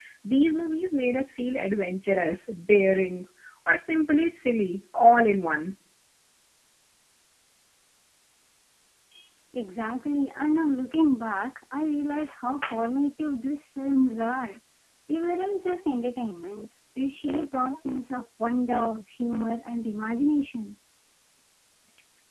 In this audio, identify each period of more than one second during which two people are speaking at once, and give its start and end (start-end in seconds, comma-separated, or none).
none